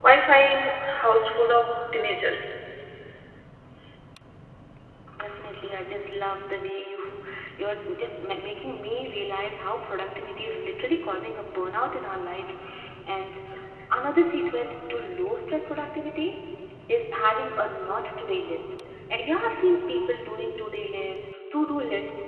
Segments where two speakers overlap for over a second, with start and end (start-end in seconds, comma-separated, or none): none